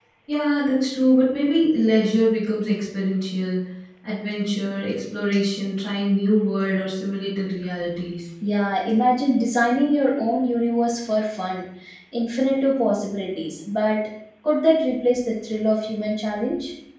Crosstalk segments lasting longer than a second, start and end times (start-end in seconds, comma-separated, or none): none